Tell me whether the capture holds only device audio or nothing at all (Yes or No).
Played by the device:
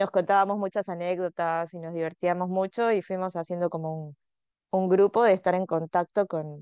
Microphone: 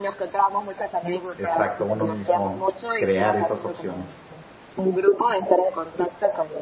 No